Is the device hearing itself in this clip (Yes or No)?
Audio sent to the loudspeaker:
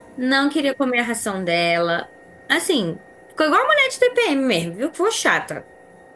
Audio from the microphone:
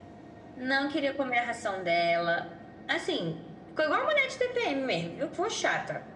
Yes